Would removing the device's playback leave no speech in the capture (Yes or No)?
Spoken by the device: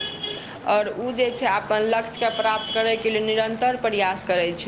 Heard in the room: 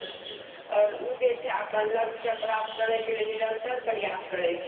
Yes